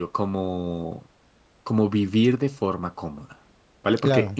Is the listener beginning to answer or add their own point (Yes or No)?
No